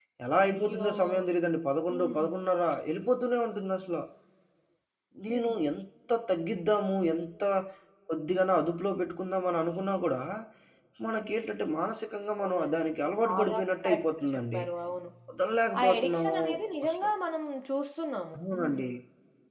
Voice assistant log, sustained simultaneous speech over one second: present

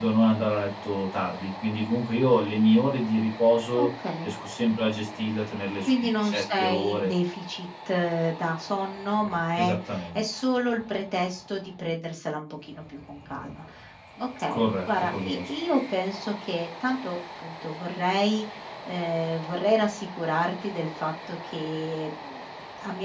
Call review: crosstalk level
present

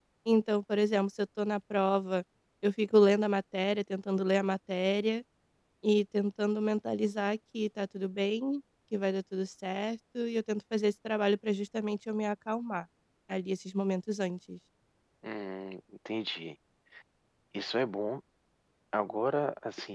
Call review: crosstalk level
none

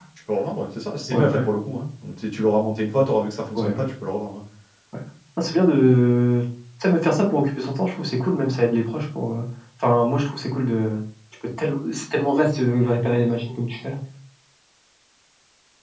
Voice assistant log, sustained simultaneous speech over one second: none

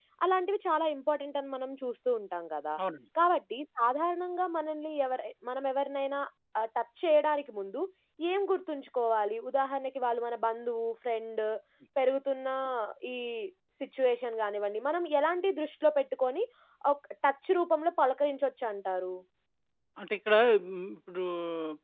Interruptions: none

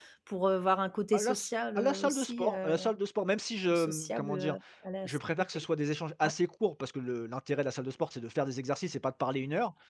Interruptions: present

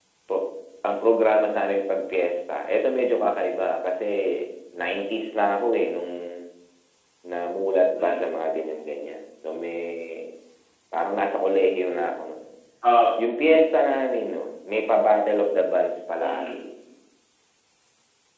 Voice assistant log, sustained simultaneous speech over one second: none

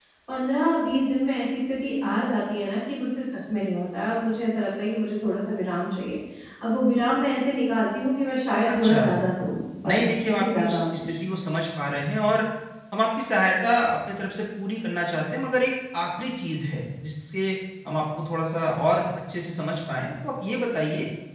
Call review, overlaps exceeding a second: present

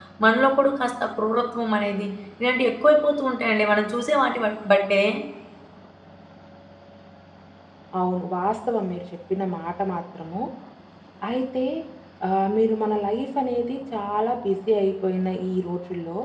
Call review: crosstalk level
none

